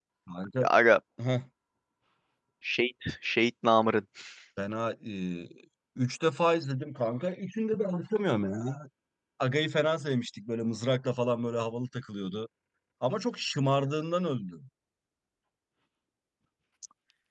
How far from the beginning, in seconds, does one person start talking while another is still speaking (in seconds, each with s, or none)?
none